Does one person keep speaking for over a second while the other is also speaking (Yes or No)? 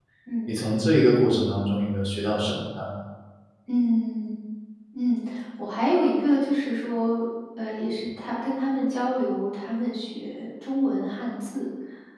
No